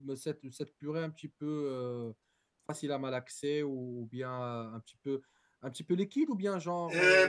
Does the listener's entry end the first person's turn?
Yes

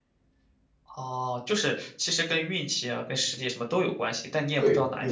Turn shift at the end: Yes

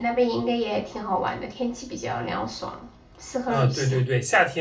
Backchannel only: No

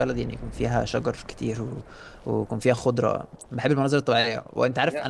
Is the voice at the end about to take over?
No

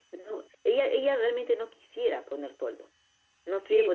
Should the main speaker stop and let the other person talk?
Yes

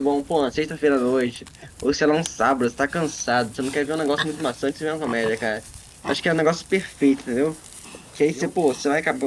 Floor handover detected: No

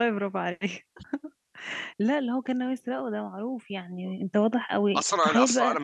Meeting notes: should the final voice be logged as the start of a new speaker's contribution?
Yes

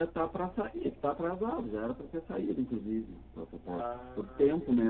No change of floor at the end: No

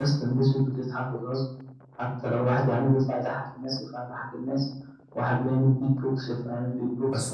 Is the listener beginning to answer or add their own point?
Yes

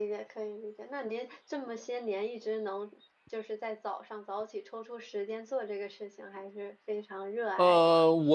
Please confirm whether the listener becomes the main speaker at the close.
Yes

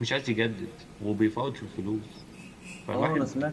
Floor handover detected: Yes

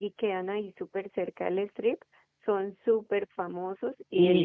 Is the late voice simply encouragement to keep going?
No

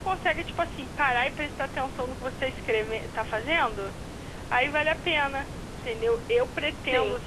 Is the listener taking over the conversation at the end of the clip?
No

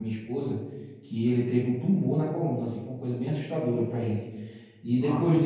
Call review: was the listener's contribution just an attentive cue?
Yes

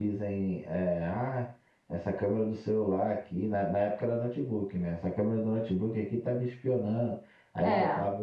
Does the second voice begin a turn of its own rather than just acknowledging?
No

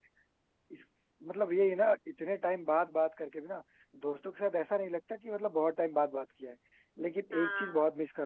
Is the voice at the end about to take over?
No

